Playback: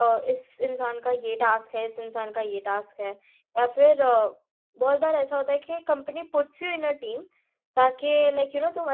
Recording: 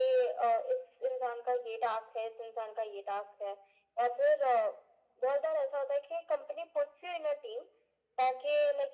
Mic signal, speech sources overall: echo only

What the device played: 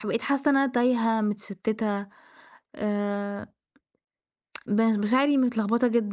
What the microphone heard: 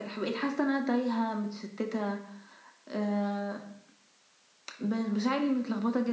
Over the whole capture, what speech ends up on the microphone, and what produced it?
echo only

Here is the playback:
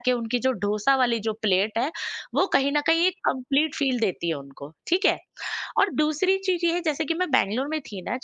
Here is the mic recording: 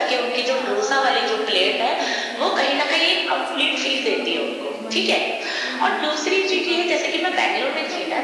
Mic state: both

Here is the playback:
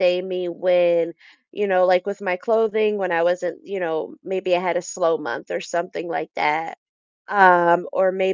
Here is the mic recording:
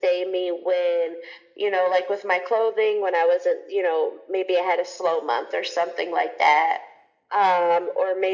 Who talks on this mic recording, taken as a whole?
echo only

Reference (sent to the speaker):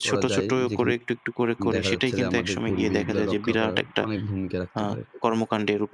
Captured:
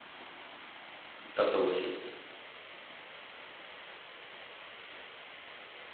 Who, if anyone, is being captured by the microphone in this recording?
user only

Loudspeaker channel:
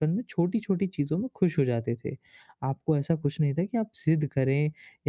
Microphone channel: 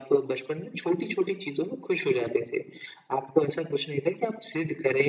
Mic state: echo only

